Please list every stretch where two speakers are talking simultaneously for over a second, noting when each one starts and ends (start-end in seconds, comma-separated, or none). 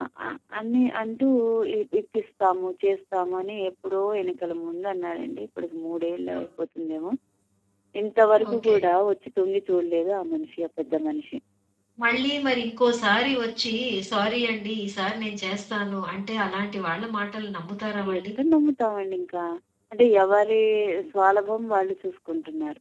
none